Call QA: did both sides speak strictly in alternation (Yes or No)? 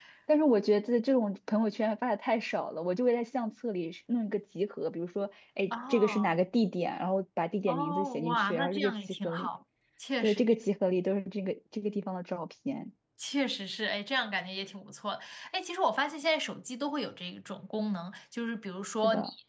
No